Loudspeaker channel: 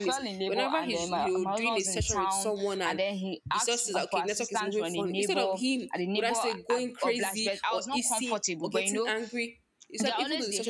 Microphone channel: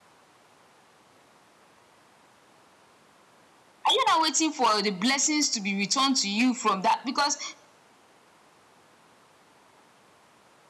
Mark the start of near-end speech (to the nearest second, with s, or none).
4 s